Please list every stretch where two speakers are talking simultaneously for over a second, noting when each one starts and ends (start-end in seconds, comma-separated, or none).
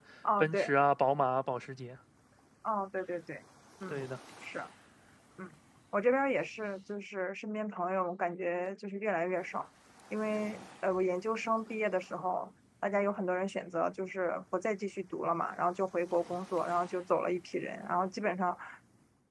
none